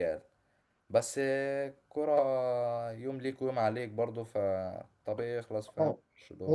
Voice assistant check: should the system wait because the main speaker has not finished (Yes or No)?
No